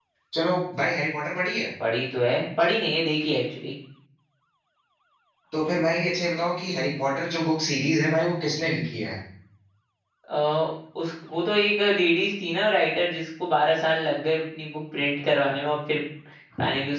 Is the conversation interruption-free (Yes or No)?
Yes